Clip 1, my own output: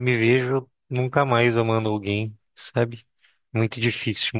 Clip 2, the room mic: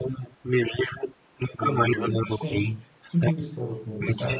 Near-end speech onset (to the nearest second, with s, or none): 2 s